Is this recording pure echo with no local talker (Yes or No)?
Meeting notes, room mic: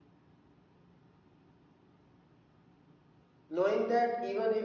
No